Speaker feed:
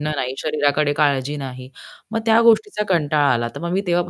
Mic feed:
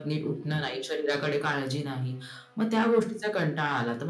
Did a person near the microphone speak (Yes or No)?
No